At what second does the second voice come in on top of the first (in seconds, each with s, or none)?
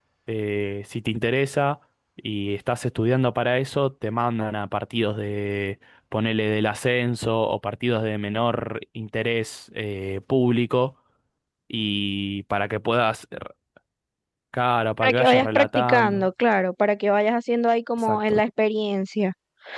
15.0 s